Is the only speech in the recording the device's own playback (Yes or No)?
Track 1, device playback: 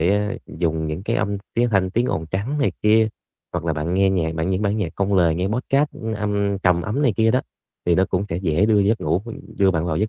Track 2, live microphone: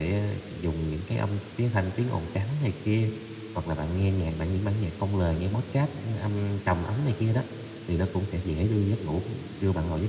Yes